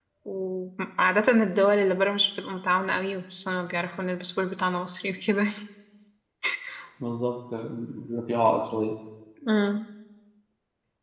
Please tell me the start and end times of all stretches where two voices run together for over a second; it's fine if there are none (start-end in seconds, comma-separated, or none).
none